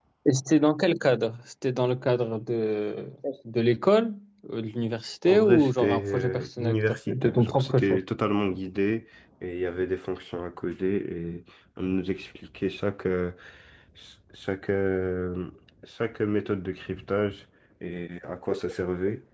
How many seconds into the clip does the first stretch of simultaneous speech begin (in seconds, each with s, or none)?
5.3 s